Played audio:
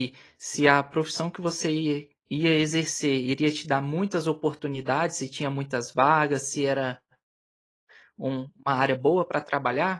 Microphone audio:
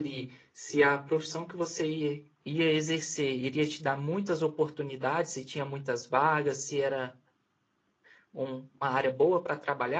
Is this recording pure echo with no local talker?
Yes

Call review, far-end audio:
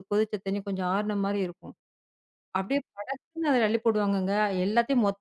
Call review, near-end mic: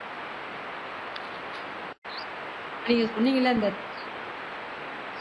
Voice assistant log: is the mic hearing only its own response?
No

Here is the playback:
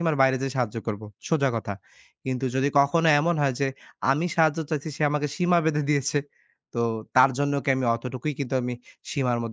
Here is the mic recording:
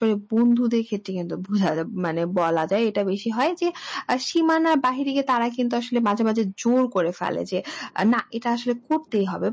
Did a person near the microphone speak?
Yes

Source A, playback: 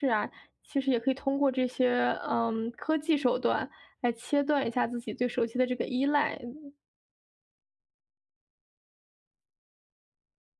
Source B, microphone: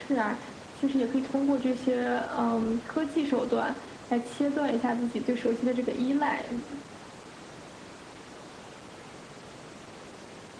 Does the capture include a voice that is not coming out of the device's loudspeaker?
No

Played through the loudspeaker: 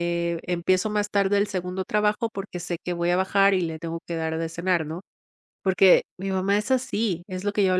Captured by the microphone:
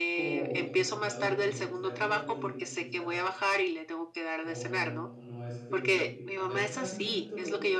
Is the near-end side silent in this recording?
No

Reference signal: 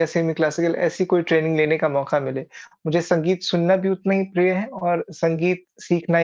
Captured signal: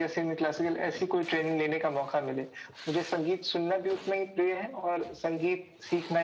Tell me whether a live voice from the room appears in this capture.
No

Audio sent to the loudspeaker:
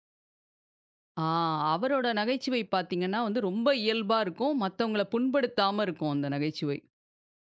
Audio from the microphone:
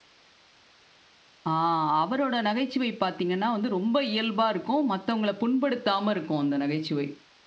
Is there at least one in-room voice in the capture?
No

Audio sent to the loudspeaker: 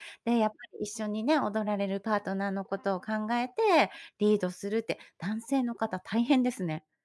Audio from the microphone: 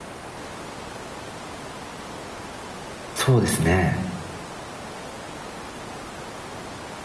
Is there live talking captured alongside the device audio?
Yes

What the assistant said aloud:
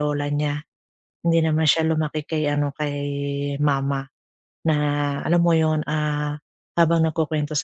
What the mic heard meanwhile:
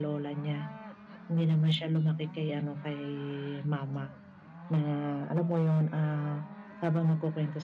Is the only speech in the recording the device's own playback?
Yes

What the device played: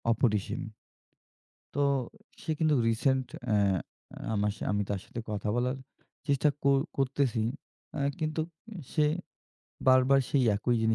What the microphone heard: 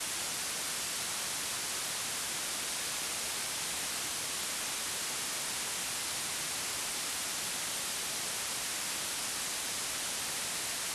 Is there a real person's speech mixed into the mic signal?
No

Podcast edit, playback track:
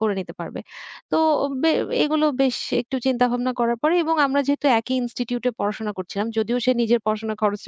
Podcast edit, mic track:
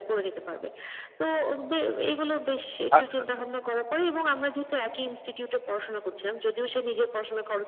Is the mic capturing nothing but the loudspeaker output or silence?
No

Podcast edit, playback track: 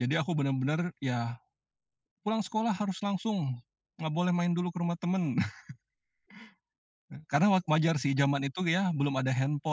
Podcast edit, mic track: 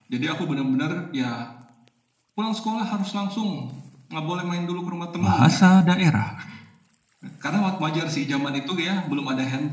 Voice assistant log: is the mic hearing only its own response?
No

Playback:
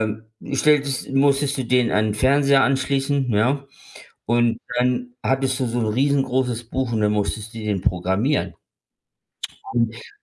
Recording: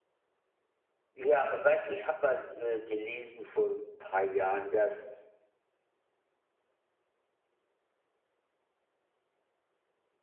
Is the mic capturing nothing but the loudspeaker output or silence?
No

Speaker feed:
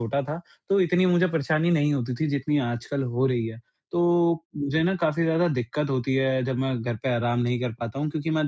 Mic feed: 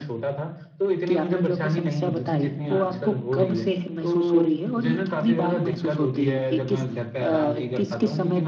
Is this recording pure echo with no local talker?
No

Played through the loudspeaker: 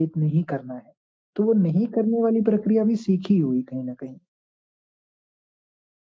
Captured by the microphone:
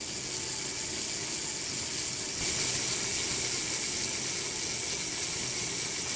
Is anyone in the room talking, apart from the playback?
No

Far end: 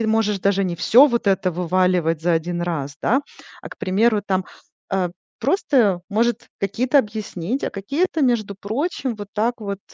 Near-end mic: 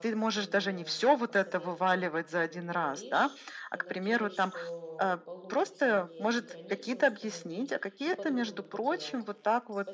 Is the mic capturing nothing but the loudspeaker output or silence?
No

